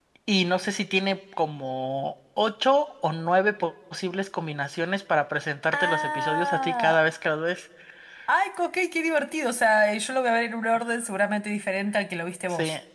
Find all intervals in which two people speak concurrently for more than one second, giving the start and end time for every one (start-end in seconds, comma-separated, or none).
5.7-7.0